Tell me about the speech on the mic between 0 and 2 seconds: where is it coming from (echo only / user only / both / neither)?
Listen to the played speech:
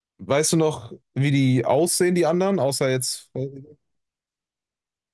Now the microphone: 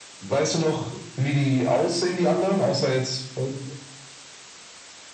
echo only